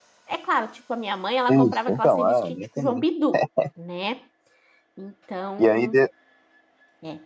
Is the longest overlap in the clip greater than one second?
Yes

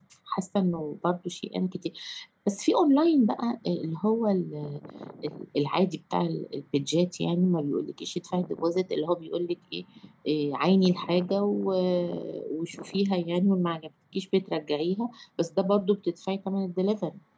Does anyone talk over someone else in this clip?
No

